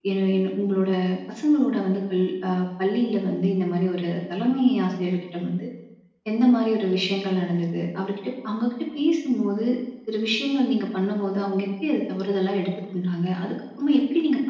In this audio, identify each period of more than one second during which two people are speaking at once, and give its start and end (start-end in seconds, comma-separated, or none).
none